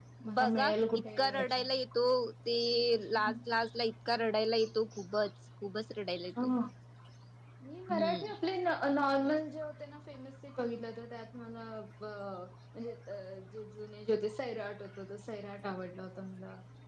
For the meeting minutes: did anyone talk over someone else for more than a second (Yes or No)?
Yes